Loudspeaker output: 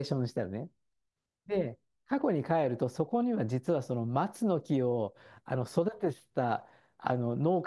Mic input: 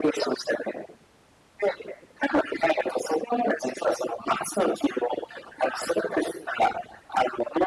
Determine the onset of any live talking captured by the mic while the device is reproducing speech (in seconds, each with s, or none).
none